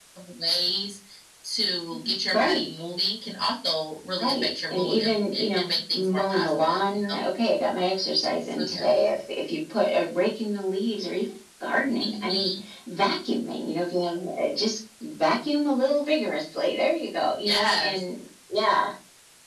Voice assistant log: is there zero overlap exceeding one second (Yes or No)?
No